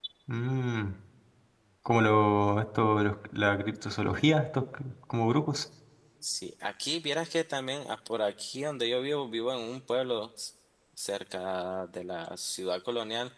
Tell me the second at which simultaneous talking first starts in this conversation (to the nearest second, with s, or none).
none